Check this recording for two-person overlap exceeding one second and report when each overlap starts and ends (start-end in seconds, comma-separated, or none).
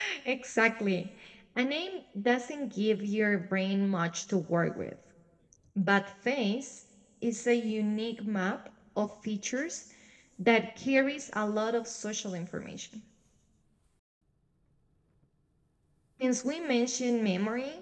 none